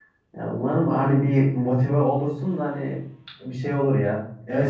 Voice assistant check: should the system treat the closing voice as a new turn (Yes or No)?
Yes